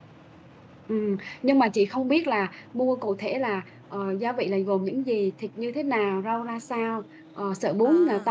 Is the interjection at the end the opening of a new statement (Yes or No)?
No